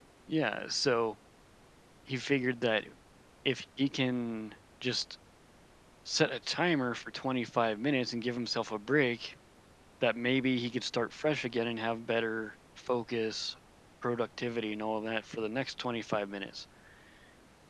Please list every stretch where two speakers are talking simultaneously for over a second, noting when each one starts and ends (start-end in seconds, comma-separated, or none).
none